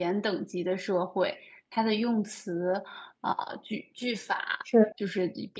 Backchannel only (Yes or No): Yes